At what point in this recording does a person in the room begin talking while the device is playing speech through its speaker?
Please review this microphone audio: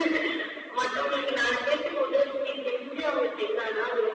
none

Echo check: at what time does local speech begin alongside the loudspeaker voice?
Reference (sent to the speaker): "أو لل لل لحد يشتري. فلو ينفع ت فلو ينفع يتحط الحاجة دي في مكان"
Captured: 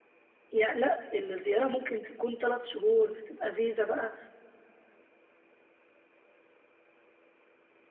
0.5 s

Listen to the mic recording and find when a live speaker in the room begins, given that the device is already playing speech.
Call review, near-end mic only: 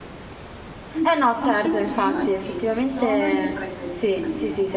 1.0 s

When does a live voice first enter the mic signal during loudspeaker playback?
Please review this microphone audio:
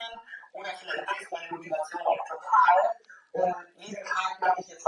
none

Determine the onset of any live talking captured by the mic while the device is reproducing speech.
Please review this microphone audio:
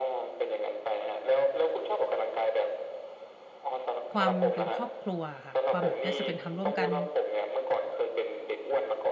4.1 s

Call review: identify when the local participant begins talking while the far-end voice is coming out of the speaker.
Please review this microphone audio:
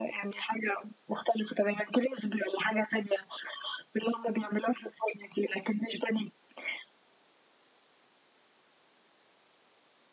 none

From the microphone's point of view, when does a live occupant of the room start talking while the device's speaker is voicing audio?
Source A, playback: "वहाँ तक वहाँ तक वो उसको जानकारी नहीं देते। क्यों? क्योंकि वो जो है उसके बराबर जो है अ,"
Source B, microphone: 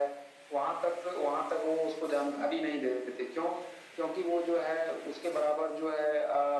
none

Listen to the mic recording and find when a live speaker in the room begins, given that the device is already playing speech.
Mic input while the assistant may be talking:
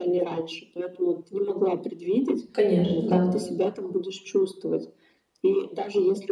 2.5 s

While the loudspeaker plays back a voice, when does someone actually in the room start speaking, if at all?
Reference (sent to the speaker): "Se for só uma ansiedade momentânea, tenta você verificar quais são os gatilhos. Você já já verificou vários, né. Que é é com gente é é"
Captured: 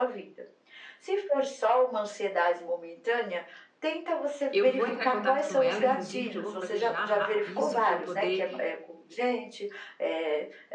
4.5 s

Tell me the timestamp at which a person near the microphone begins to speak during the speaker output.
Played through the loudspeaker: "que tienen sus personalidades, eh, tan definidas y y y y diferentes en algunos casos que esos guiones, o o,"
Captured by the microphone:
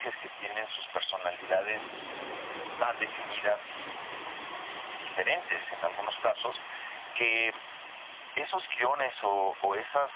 none

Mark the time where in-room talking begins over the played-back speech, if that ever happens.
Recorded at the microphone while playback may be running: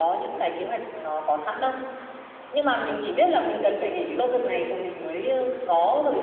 none

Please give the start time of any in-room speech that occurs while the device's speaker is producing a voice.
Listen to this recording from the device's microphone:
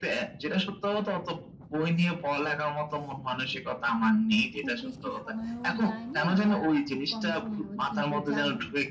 4.6 s

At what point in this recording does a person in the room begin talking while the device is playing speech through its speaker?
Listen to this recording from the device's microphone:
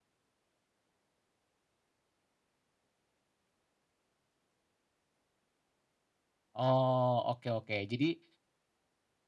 6.6 s

